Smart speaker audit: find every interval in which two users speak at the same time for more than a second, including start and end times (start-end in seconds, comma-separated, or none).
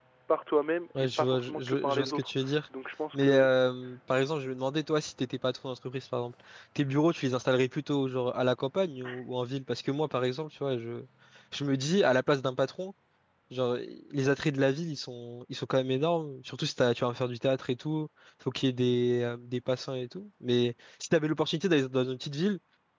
1.0-2.3